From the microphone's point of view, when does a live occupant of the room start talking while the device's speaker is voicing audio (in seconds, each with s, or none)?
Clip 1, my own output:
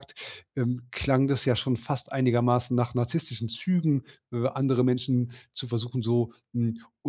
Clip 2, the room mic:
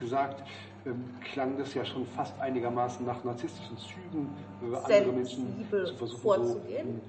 4.7 s